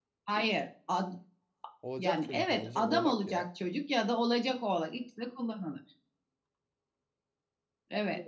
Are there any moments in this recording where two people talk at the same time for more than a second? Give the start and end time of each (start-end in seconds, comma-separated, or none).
2.0-3.4